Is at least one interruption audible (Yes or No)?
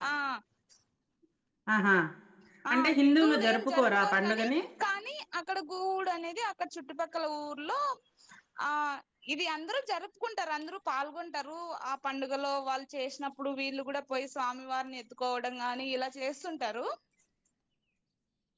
Yes